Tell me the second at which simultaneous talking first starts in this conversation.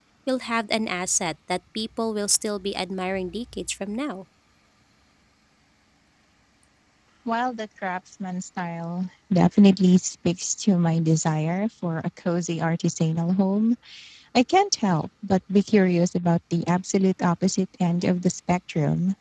none

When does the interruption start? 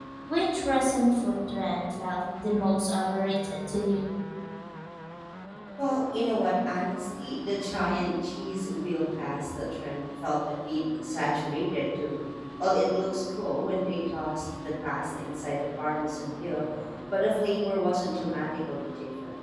none

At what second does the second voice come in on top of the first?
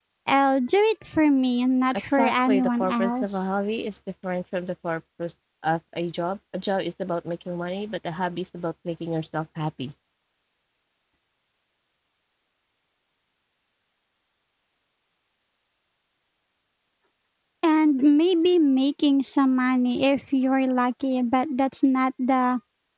1.9 s

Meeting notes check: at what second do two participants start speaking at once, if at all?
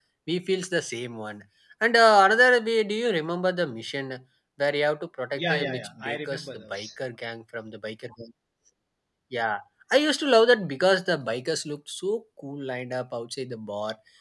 5.3 s

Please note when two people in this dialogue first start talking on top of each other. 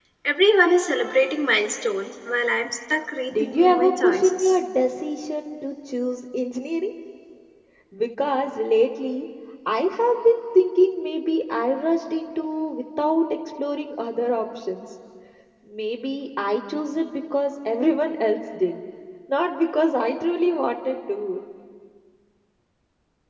3.3 s

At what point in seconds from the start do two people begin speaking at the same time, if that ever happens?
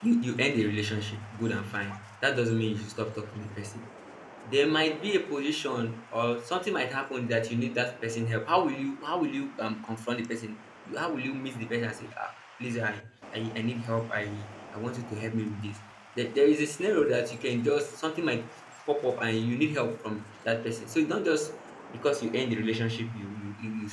none

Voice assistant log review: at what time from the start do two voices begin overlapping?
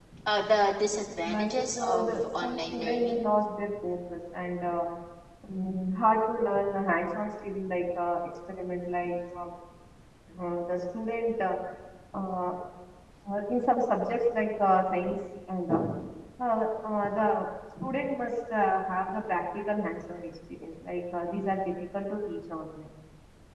1.2 s

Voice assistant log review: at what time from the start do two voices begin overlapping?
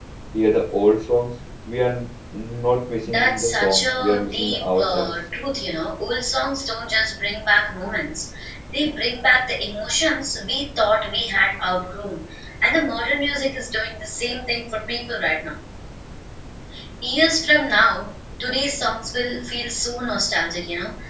3.0 s

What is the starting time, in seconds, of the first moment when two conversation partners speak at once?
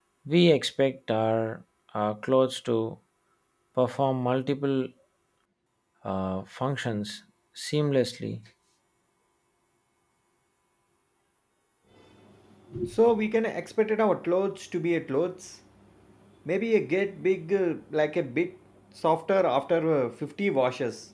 none

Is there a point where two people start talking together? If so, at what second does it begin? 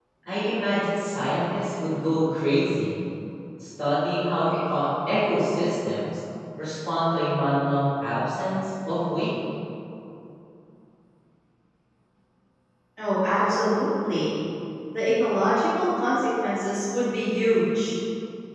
none

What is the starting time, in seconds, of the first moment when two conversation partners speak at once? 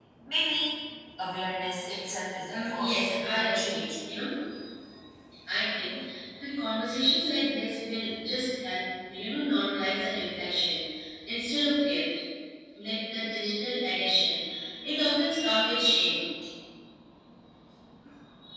2.5 s

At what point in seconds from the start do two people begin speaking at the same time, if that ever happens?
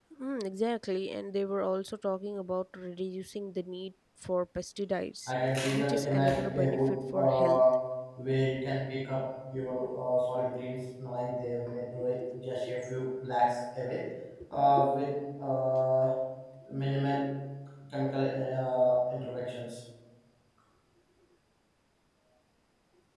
5.7 s

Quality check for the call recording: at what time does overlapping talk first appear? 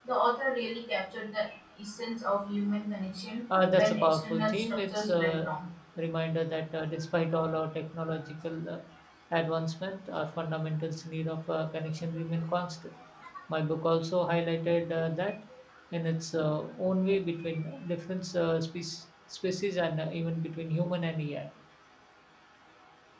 3.5 s

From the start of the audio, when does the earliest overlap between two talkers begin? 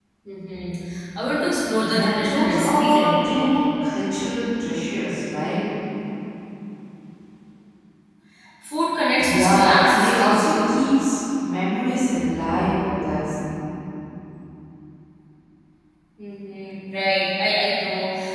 1.9 s

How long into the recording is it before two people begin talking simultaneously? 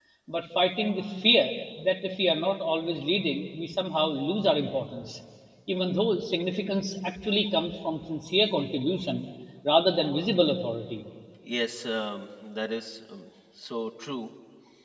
none

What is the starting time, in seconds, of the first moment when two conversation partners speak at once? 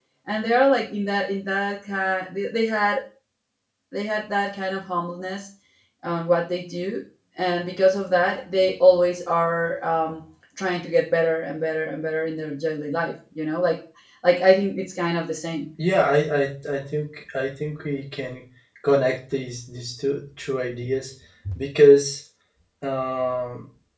none

